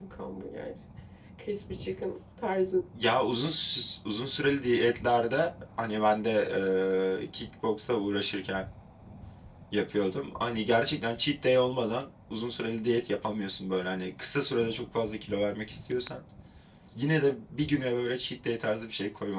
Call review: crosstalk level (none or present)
none